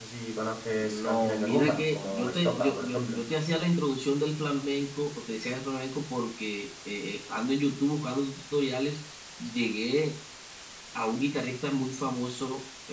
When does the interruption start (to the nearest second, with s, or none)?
1 s